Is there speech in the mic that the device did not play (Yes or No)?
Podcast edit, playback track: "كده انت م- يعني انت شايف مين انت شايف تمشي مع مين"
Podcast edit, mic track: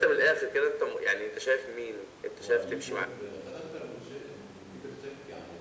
Yes